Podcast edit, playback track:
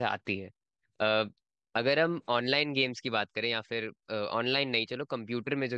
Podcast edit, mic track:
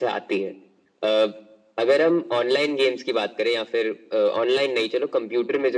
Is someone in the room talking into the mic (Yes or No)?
No